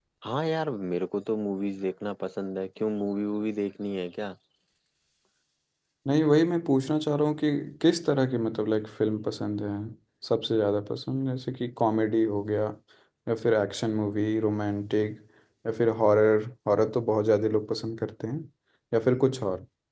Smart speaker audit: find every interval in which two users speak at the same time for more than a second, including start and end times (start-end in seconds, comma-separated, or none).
none